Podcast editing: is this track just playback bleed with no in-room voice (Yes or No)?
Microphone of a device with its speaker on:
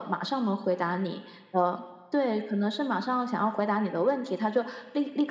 Yes